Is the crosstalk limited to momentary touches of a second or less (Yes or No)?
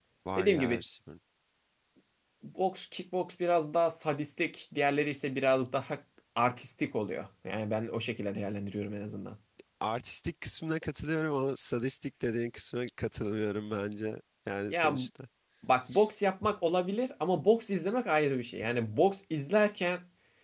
Yes